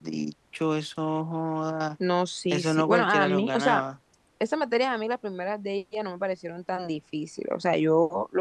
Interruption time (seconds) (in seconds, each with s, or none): 2.5 s